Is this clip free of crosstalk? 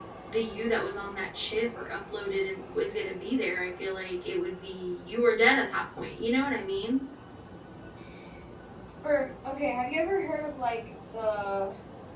Yes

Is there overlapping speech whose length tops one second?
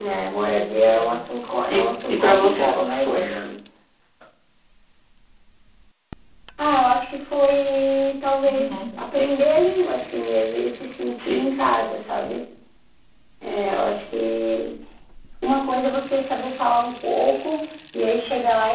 Yes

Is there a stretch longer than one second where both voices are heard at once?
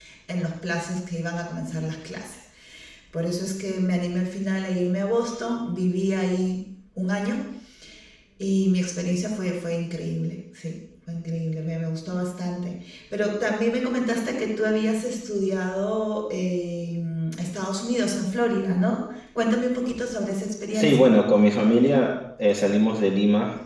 No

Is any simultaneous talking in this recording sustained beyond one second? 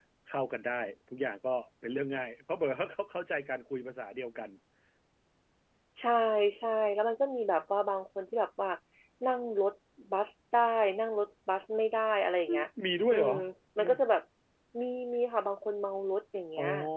No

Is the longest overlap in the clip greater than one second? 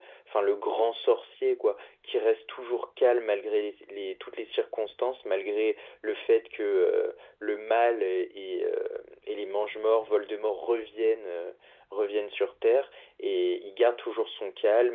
No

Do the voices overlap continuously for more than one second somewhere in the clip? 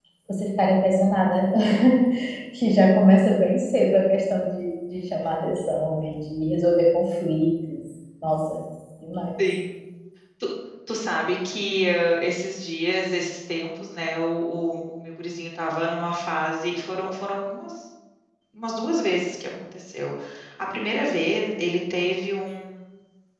No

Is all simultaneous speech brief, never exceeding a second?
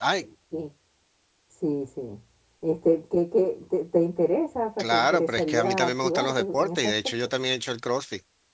No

